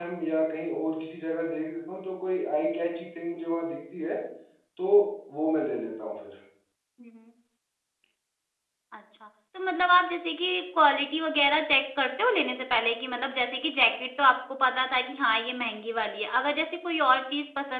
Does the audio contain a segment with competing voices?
No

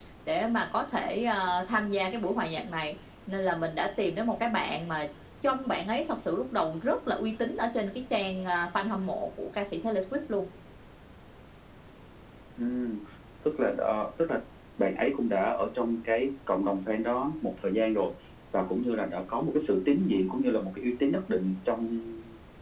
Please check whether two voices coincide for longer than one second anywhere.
No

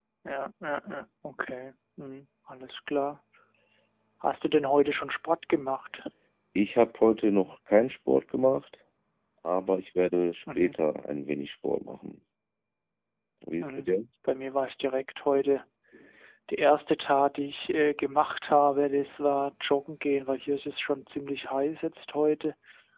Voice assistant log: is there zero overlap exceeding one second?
Yes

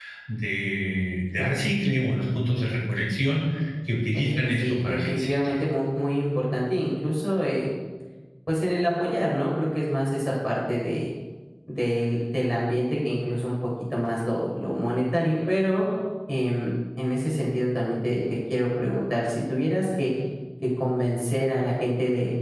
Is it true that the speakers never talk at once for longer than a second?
No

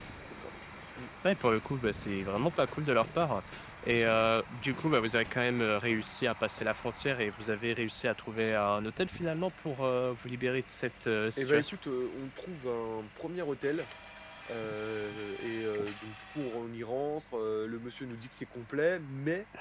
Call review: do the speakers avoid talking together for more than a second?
Yes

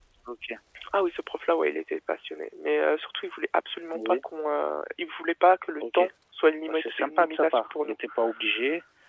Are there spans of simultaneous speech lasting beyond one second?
Yes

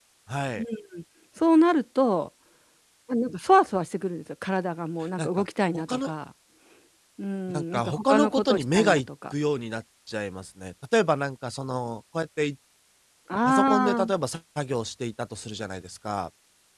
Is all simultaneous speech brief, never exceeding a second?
No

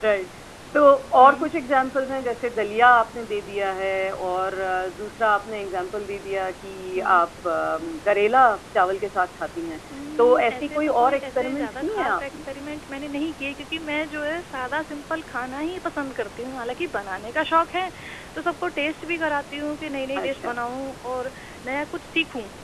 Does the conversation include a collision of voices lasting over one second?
Yes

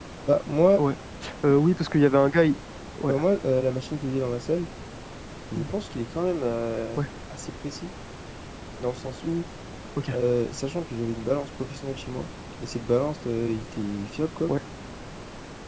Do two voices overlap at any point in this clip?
No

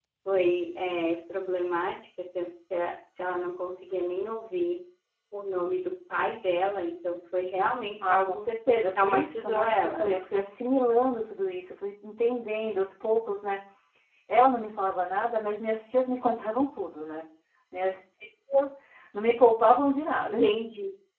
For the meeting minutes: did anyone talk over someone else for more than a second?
Yes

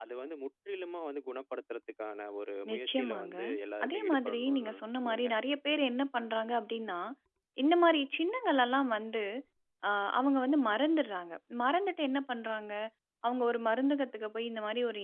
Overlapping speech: Yes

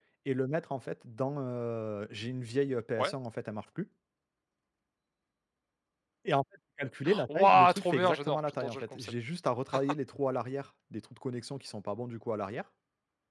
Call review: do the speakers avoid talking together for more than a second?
No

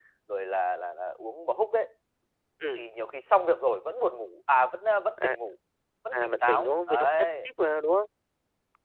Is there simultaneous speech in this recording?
Yes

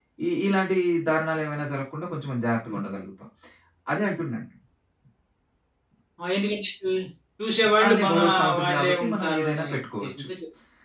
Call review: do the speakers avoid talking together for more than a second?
No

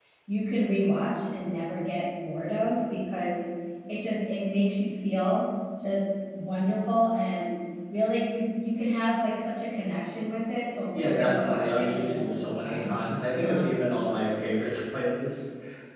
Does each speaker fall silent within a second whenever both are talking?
No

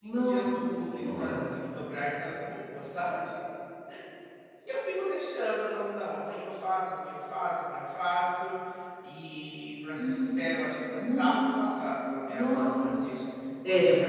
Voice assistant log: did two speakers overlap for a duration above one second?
Yes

